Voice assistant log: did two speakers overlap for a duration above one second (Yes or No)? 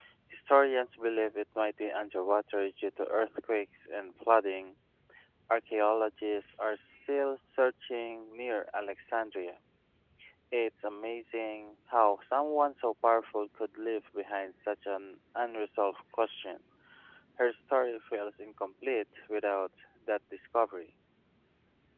No